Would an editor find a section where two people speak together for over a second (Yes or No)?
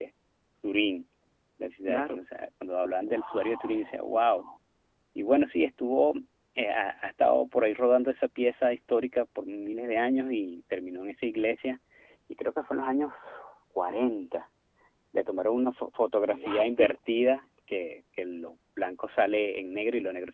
Yes